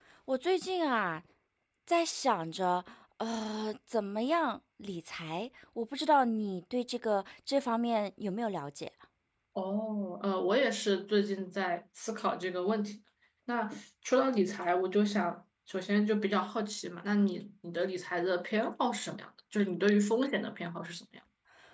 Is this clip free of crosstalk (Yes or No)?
Yes